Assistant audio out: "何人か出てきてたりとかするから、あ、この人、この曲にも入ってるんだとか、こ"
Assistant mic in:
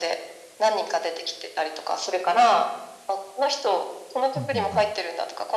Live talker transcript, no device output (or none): うん、ふんふん。